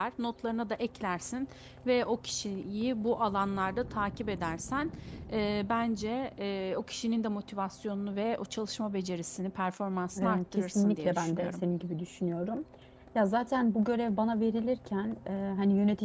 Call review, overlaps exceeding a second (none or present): present